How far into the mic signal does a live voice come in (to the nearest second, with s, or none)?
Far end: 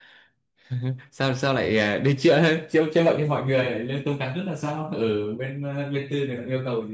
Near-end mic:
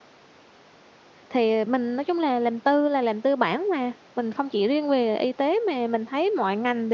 1 s